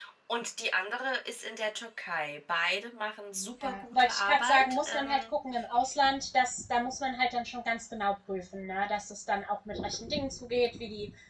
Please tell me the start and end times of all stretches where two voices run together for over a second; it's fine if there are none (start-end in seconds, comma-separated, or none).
3.6-5.2